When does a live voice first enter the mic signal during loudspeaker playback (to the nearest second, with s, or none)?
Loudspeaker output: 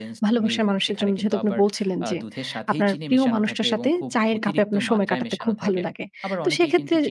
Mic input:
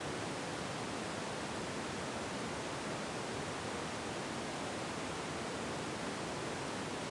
none